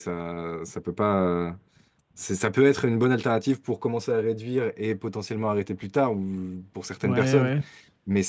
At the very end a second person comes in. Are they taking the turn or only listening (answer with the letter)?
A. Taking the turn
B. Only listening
B